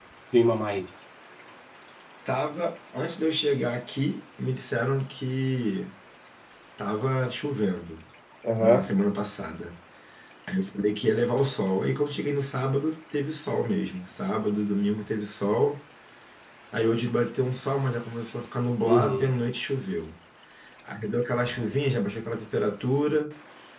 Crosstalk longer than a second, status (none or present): none